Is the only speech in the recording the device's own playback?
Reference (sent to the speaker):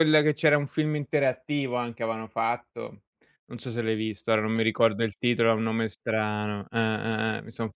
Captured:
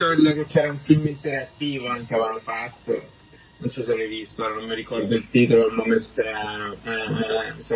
Yes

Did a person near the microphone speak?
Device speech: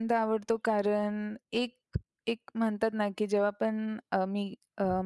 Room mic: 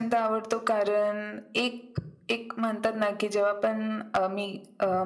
No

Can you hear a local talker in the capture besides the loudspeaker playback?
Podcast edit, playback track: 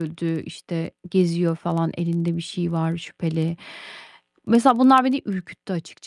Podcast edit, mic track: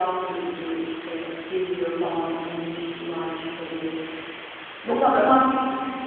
Yes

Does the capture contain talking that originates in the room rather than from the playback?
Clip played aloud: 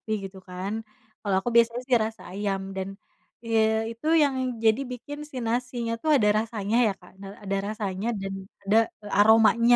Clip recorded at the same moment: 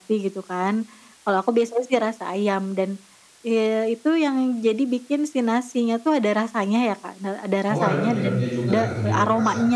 Yes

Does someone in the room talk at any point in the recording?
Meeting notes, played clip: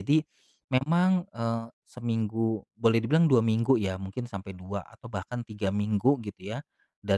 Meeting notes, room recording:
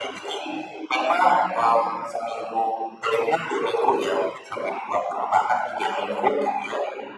No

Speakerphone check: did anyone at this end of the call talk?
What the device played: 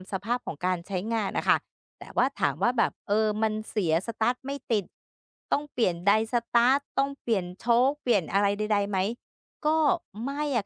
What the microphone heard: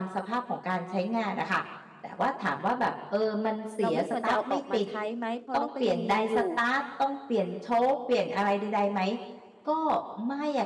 Yes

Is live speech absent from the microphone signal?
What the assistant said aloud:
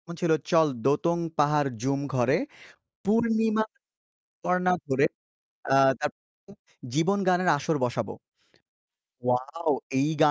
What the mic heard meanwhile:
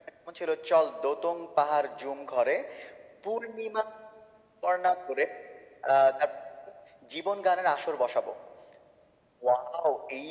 Yes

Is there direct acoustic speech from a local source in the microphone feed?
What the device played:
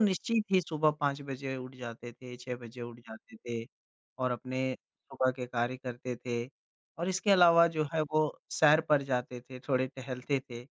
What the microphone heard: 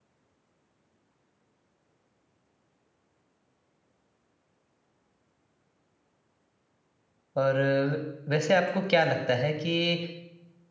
Yes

